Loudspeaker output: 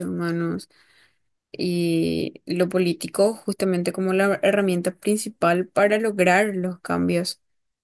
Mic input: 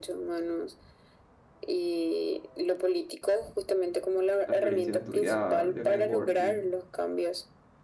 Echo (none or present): present